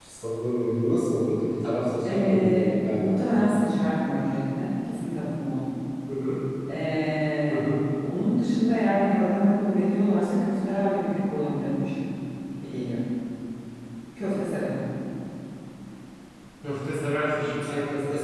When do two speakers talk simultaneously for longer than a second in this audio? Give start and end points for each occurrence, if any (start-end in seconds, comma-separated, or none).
2.0-3.5